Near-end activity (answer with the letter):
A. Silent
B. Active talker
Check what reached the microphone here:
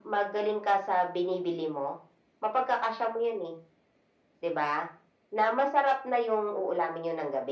A